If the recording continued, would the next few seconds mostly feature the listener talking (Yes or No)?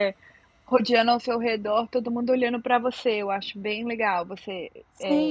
Yes